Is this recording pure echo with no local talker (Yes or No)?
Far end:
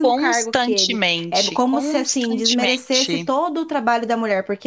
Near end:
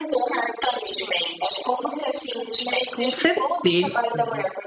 No